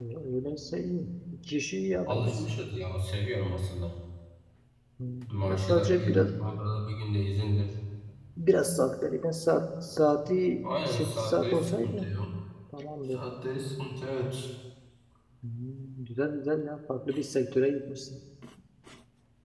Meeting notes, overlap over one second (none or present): present